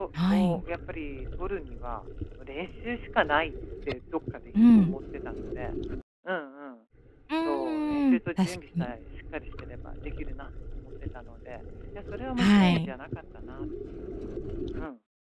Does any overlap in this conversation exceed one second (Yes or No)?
Yes